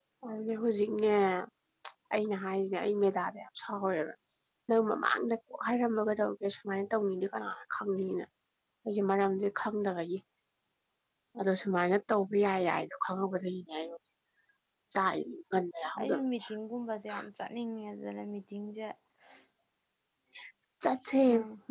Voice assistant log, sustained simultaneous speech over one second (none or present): none